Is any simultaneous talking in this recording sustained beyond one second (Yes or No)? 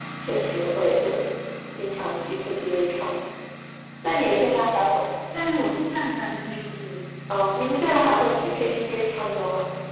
No